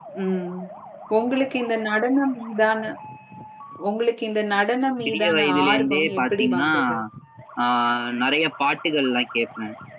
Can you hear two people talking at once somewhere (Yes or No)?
Yes